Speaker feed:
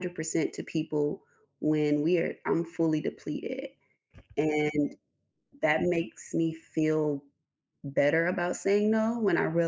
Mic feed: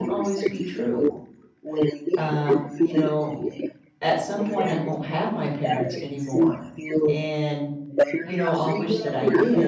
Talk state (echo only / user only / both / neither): both